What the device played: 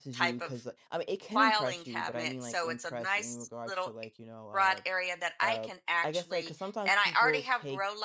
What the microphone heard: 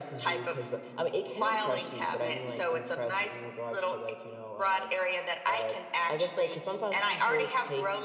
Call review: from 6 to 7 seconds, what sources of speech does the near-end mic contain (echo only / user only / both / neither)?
echo only